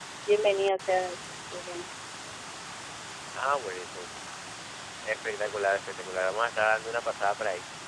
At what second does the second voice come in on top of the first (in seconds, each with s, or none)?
none